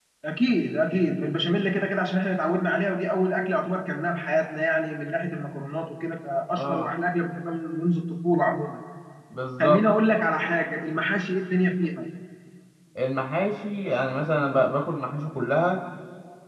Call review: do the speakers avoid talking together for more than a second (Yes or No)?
Yes